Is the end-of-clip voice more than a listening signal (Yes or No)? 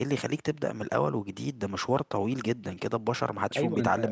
Yes